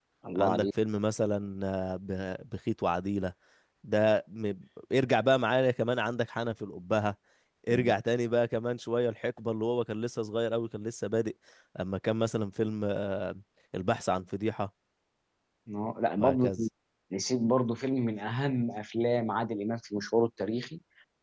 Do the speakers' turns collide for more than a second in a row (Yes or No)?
No